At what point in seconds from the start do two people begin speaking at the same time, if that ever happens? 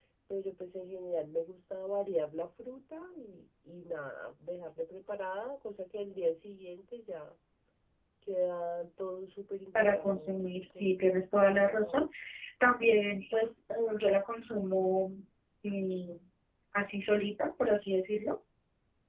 9.8 s

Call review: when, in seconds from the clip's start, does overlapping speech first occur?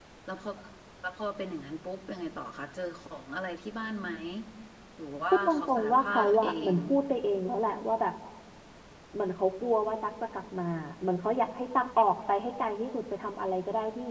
5.5 s

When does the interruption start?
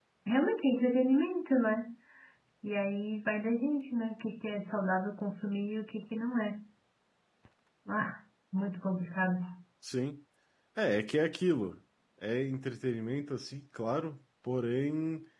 none

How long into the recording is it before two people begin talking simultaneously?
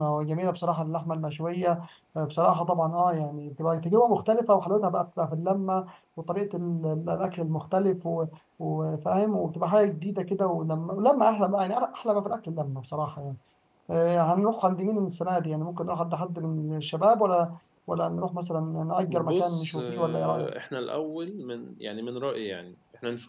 19.1 s

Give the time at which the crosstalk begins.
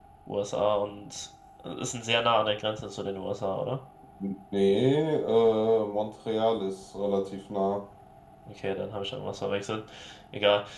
none

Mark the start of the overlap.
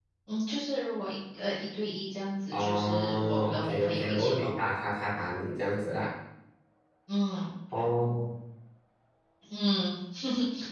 2.5 s

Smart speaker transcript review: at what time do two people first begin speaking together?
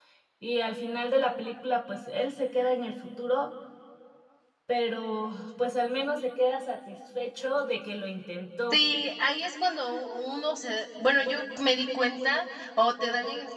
none

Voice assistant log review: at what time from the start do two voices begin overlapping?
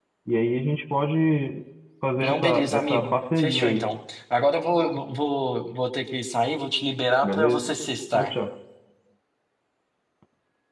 2.2 s

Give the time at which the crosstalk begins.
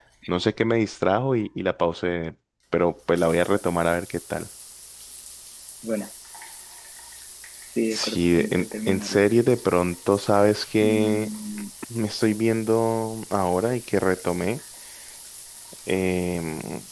7.9 s

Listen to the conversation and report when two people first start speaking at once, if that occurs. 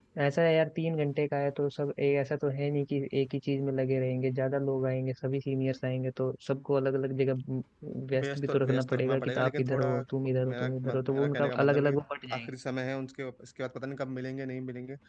8.2 s

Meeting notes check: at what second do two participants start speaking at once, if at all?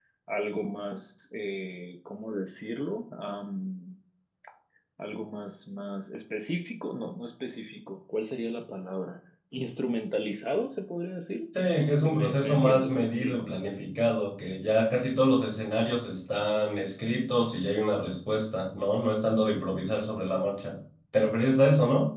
11.5 s

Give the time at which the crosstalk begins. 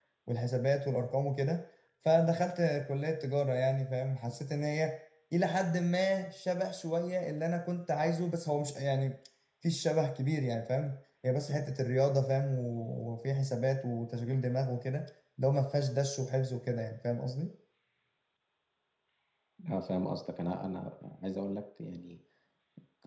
none

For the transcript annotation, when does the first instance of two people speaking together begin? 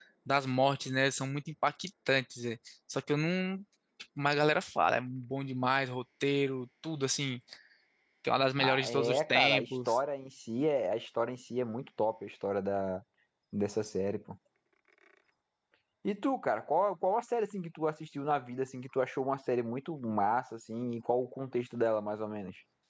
8.6 s

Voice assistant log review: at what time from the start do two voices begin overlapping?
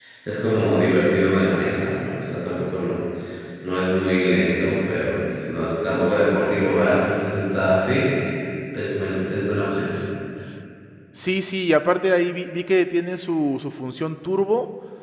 none

